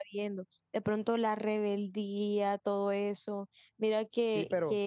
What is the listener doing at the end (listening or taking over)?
listening